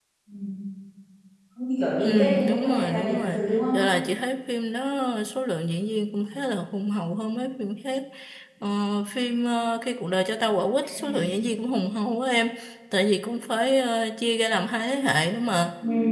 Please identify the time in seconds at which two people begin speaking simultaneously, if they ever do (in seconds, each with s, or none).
2.0 s